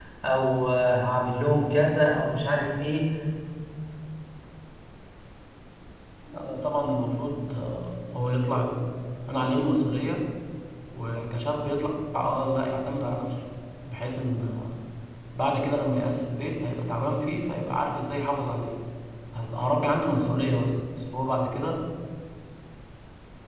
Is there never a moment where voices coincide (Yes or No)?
Yes